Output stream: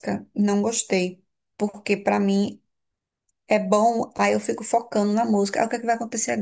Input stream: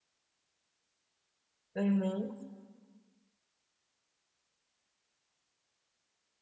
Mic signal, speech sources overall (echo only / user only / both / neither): user only